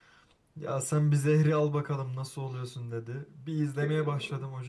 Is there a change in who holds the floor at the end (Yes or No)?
No